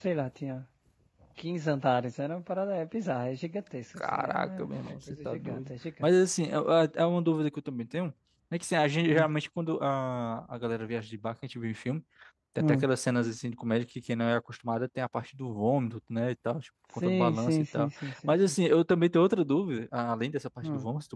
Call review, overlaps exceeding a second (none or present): present